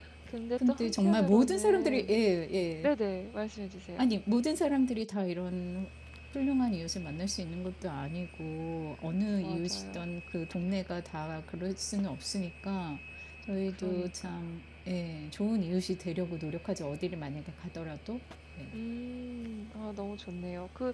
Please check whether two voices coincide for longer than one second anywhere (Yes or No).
Yes